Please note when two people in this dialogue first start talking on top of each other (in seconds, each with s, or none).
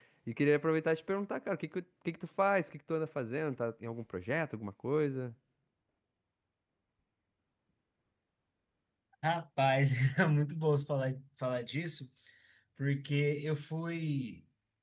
none